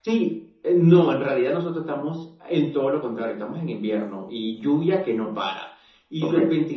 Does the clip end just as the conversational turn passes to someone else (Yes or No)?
No